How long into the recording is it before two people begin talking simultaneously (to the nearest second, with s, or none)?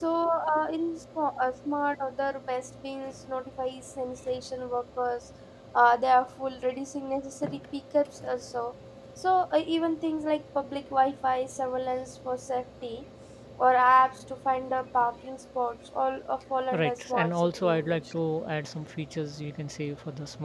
17 s